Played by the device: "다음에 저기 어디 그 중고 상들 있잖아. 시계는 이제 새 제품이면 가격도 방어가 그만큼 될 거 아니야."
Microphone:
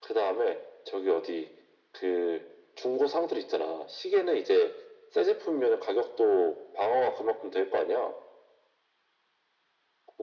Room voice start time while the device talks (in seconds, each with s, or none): none